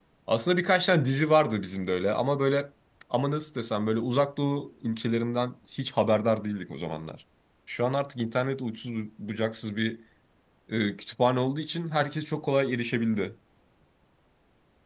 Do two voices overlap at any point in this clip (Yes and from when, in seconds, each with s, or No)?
No